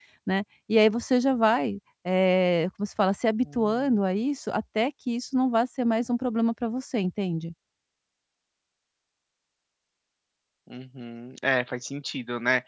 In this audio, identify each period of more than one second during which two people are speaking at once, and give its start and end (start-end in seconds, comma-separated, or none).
none